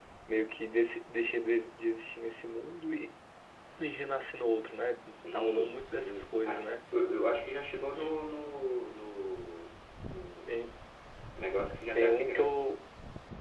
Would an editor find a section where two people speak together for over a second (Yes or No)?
Yes